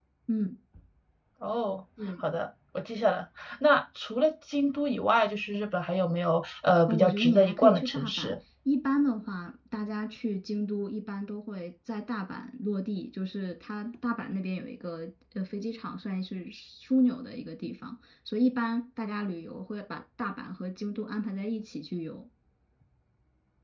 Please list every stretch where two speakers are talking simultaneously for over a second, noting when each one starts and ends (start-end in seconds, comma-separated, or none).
6.9-8.3